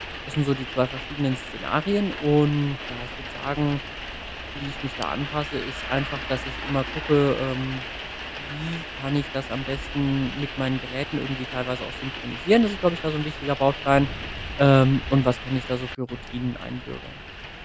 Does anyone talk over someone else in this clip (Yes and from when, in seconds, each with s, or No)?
No